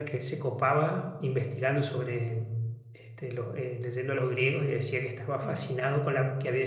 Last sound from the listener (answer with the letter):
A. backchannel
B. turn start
A